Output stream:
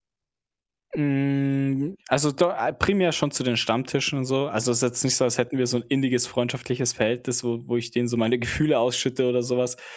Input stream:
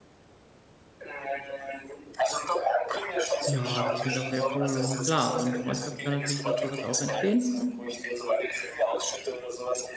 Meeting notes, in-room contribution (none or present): present